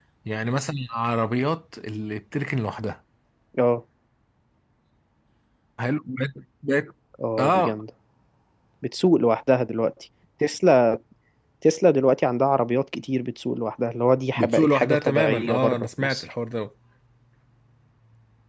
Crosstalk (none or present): present